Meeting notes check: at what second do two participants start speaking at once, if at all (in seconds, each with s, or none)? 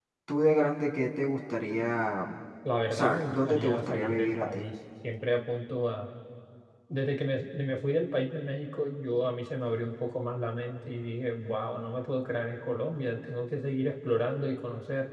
2.9 s